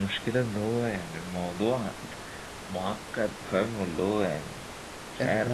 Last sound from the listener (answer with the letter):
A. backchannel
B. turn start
B